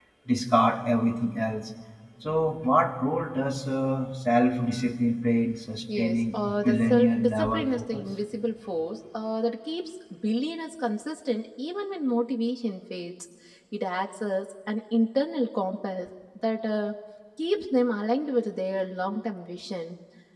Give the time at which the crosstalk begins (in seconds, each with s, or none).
5.9 s